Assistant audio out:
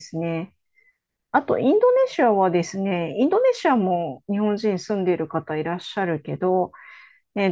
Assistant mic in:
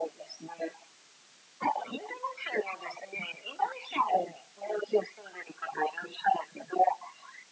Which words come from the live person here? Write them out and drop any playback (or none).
none